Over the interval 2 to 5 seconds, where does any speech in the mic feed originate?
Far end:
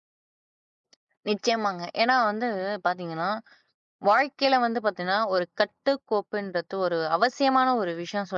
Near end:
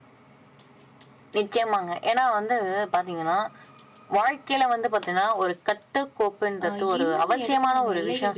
echo only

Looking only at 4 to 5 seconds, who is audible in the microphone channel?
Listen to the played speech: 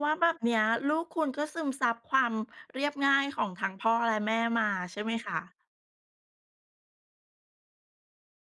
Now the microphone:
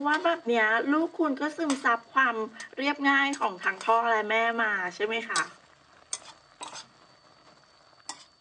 echo only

